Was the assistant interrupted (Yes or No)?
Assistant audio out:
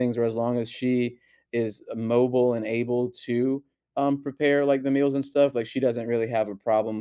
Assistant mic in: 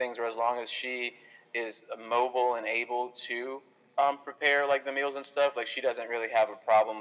No